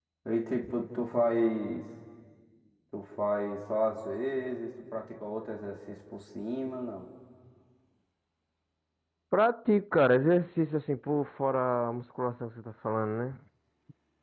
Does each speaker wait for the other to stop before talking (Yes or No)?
Yes